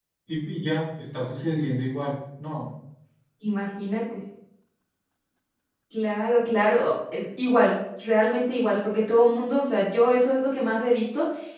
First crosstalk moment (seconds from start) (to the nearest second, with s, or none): none